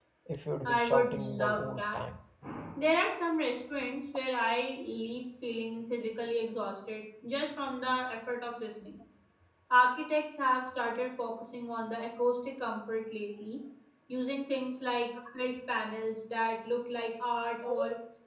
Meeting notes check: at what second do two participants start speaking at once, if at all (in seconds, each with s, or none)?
0.6 s